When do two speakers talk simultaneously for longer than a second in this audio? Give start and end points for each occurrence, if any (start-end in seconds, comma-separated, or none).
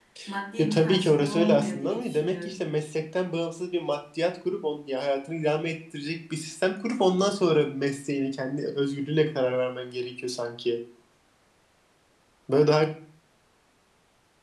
0.6-2.6